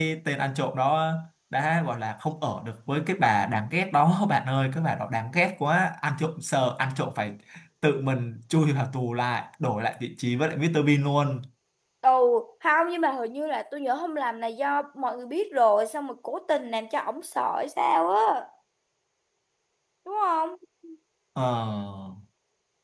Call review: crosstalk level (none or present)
none